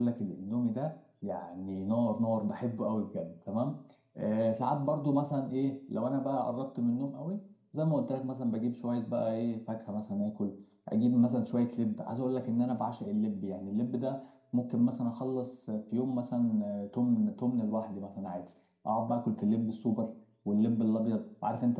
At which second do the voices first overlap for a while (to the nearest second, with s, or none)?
none